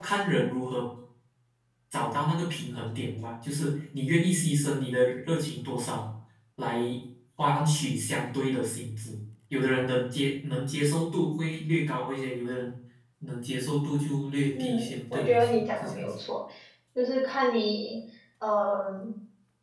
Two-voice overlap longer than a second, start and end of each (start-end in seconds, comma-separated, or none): 14.6-16.1